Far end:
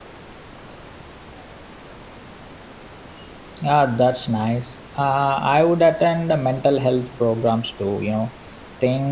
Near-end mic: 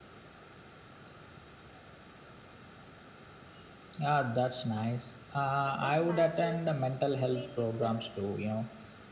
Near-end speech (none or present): present